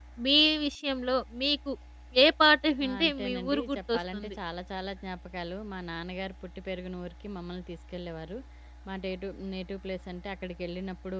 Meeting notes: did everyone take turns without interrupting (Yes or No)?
No